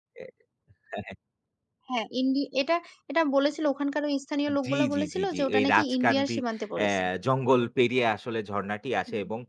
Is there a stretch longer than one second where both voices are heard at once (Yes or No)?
Yes